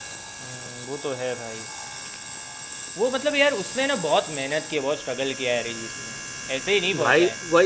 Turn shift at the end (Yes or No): Yes